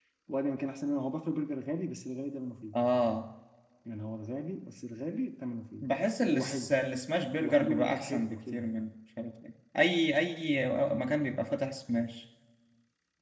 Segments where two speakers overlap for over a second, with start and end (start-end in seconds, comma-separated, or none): 7.4-8.6